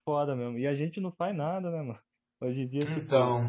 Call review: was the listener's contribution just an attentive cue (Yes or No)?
Yes